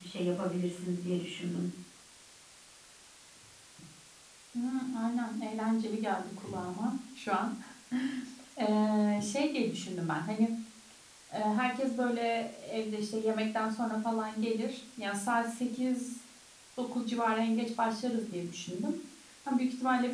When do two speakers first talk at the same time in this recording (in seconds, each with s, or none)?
none